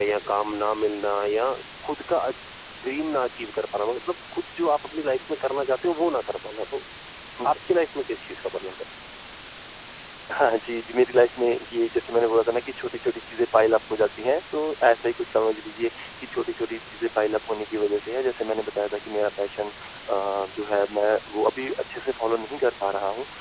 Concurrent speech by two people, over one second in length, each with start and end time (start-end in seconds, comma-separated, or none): none